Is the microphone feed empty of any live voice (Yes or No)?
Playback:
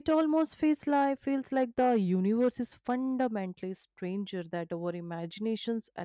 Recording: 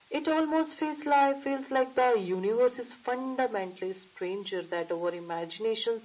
Yes